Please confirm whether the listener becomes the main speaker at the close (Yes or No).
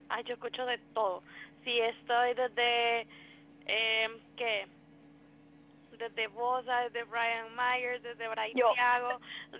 No